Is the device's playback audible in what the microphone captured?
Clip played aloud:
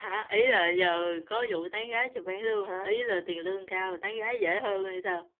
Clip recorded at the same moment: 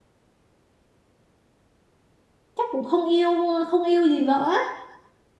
No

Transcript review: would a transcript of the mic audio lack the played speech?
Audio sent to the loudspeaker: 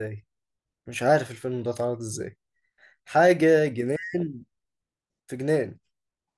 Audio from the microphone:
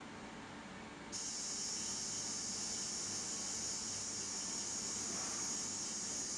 Yes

